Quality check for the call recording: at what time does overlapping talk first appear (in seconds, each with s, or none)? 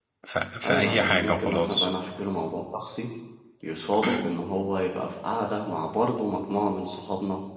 0.6 s